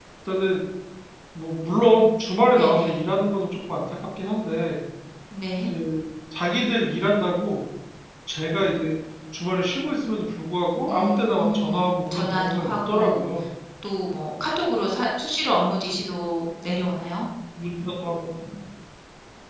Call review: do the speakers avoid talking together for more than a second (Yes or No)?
No